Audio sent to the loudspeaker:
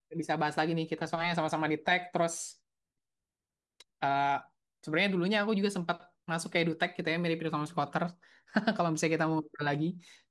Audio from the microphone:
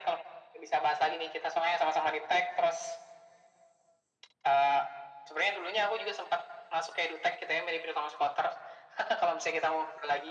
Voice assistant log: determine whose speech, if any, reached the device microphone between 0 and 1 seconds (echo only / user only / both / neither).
echo only